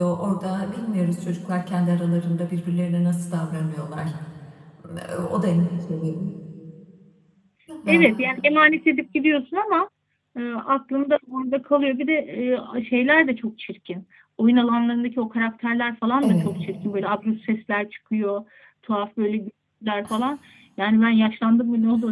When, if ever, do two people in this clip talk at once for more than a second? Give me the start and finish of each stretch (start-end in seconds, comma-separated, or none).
none